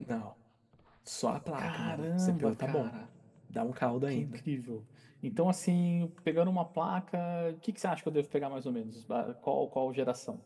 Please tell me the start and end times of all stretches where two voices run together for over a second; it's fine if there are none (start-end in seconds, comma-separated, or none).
1.6-2.9